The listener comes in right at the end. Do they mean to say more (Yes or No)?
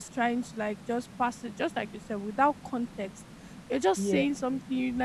No